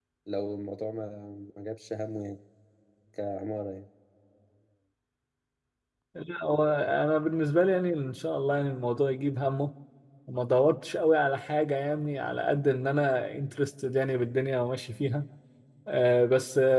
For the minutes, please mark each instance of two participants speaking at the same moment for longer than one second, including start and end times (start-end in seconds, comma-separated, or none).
none